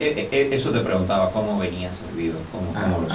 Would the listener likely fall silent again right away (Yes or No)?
No